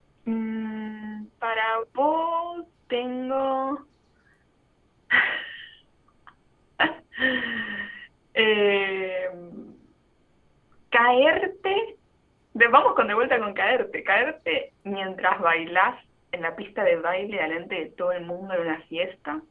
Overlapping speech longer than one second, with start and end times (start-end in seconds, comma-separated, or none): none